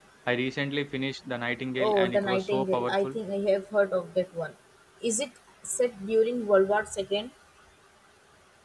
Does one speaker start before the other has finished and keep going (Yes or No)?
Yes